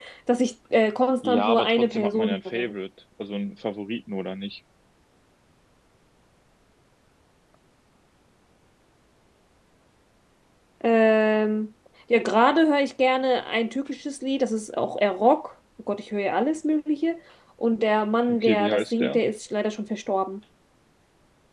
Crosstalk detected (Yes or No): Yes